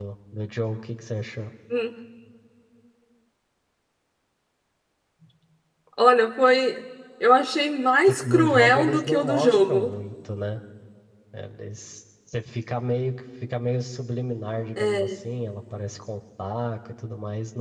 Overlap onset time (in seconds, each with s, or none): 8.1 s